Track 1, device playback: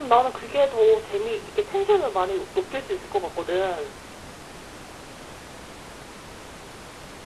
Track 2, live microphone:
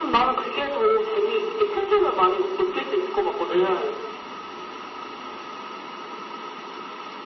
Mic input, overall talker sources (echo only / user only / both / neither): echo only